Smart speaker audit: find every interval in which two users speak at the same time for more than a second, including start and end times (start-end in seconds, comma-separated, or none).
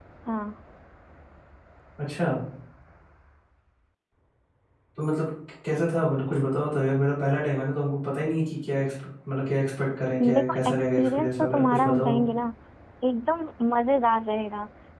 10.3-12.2